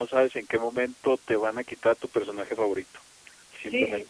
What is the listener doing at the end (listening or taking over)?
taking over